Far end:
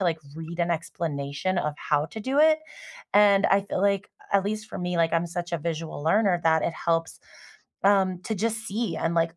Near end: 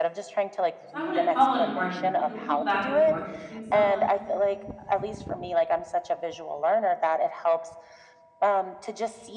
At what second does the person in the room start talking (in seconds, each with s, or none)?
0.9 s